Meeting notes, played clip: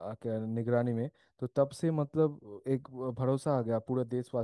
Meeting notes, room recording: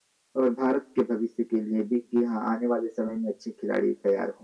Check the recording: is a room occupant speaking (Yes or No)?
Yes